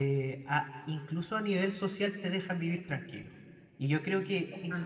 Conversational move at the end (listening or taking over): listening